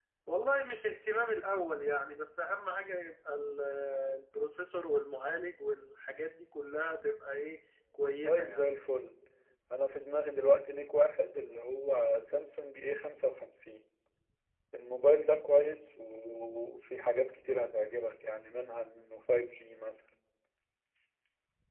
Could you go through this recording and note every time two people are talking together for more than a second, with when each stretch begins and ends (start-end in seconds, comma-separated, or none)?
none